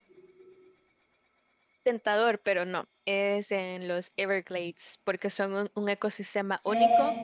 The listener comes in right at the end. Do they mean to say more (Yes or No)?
No